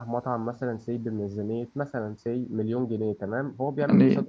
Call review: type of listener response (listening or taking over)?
listening